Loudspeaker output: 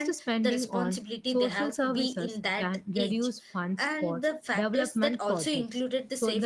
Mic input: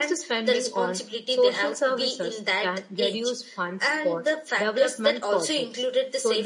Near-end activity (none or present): none